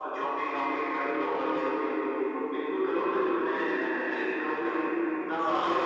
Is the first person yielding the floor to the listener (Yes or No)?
No